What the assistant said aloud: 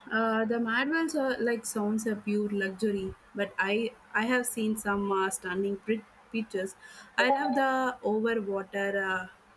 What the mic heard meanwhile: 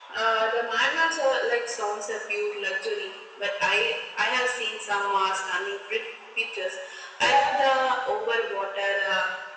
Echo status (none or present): present